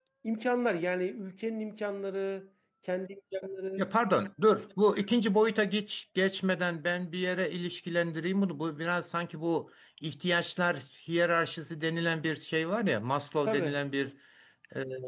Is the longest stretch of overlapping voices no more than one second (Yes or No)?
Yes